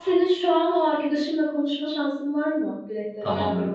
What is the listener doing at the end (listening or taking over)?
taking over